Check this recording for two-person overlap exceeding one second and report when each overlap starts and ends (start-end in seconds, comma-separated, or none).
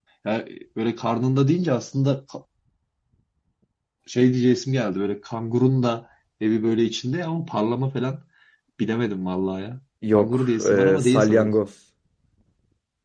10.1-11.5